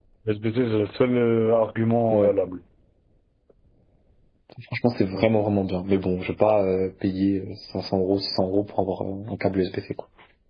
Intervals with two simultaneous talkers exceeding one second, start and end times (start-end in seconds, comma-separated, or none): none